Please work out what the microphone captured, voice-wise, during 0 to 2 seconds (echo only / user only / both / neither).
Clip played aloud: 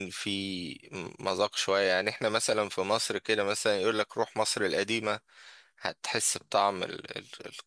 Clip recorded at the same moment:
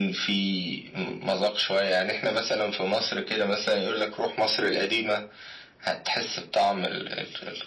echo only